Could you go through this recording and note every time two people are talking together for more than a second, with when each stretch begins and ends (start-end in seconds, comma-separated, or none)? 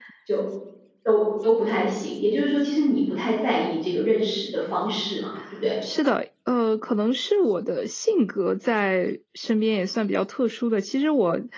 none